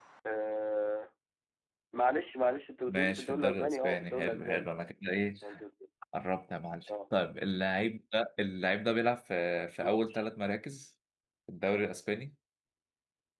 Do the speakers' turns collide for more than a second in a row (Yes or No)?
Yes